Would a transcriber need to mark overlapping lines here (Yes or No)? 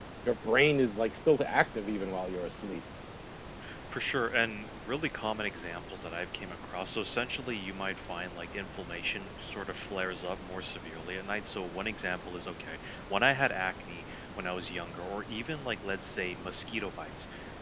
No